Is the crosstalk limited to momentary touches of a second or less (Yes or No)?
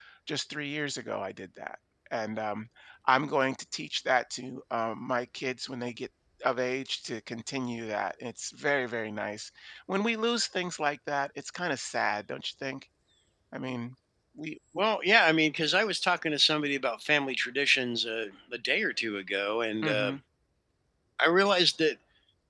Yes